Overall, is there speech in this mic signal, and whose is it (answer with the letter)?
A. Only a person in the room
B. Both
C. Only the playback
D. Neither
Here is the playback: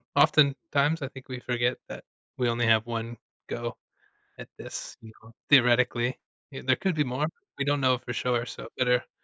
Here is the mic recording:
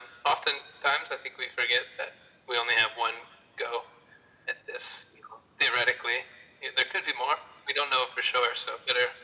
C